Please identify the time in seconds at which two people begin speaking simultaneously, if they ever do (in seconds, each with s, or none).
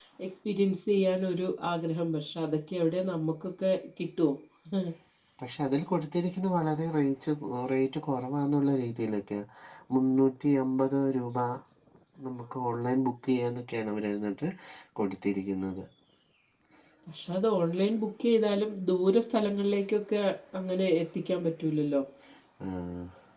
none